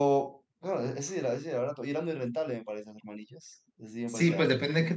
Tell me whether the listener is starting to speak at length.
Yes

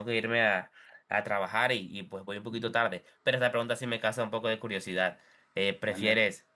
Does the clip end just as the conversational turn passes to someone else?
No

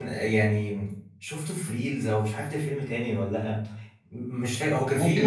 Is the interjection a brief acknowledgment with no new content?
Yes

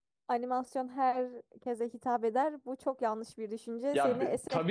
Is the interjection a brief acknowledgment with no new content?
No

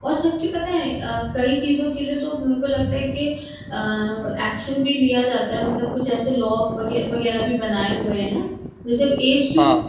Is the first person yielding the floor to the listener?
No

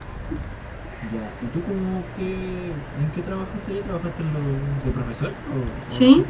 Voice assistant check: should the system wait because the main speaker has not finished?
No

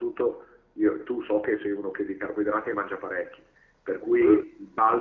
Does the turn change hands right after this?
No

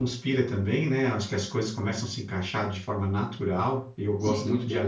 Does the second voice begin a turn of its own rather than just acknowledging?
No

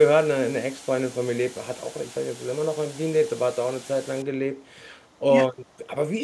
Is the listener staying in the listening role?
Yes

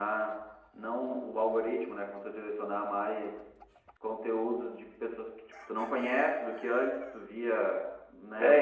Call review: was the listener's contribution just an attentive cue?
No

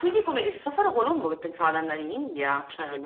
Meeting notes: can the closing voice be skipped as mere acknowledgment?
No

